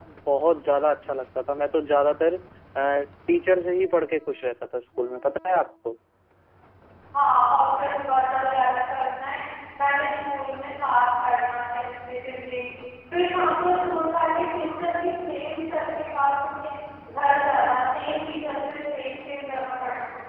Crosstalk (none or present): none